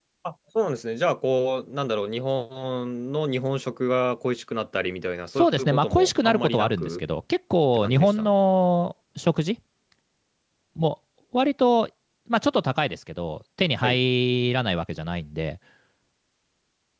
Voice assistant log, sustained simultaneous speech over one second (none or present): present